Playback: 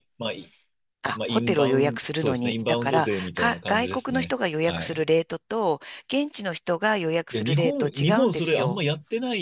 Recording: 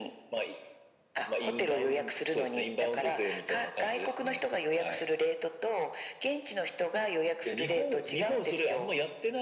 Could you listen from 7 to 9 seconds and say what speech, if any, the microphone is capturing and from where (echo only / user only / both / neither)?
echo only